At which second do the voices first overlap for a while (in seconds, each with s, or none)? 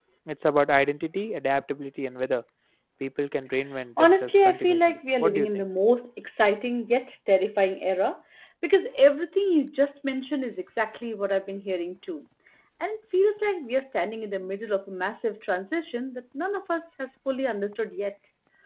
4.0 s